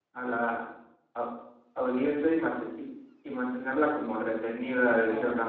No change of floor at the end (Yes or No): No